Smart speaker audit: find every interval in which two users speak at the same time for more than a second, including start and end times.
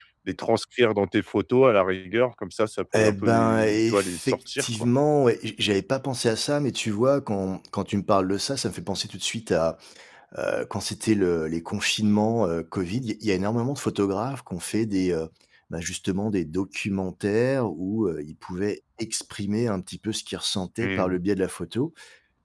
3.0-4.9

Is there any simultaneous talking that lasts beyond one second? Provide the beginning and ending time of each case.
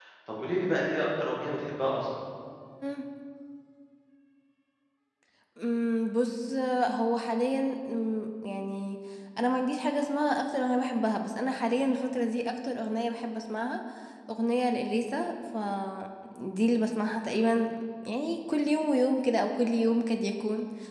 none

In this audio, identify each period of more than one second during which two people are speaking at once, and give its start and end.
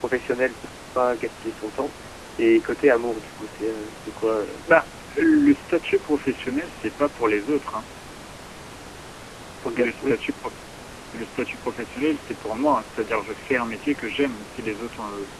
none

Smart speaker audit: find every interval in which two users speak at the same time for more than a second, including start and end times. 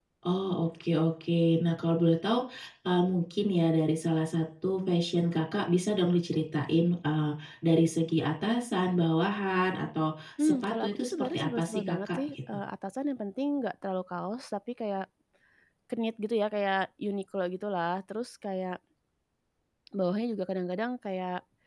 10.4-12.4

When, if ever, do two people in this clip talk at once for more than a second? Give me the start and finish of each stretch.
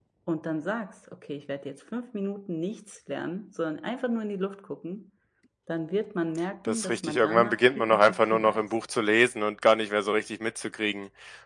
6.7-8.6

